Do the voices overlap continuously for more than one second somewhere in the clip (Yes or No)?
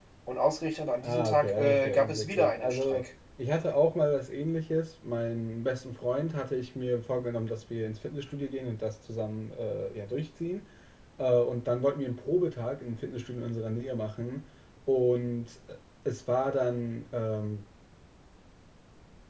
Yes